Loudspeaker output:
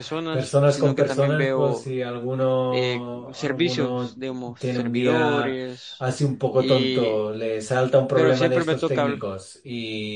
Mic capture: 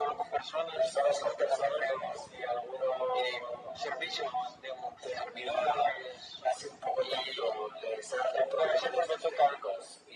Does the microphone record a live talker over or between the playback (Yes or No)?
No